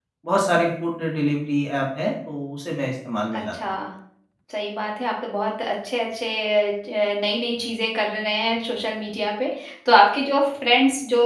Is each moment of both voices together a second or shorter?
Yes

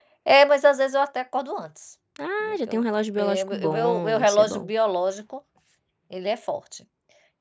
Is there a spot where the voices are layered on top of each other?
Yes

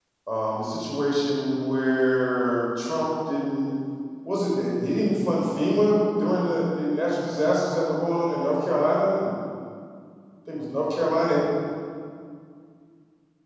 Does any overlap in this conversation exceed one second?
No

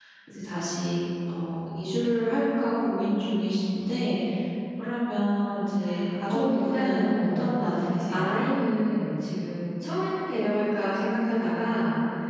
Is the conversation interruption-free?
No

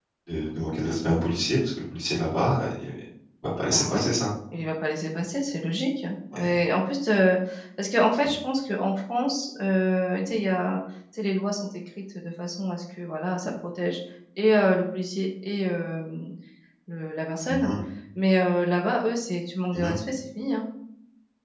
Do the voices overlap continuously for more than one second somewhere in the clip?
No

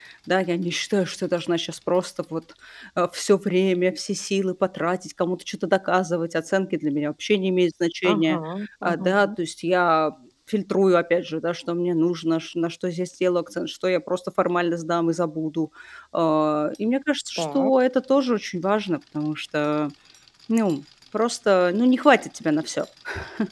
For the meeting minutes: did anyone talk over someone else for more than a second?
No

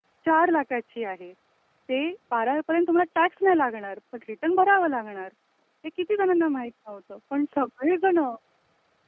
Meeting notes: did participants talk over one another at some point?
No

